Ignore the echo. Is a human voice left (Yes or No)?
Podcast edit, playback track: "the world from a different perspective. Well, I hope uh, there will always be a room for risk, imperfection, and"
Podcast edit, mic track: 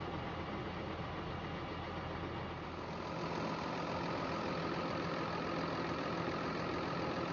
No